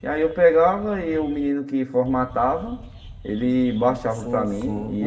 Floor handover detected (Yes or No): Yes